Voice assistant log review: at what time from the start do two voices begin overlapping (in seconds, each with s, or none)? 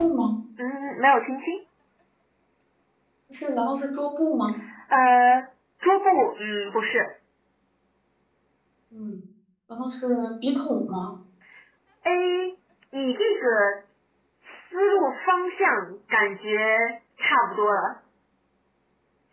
none